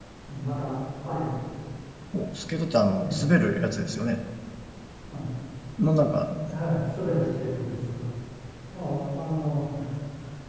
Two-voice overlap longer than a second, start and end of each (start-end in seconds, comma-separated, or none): none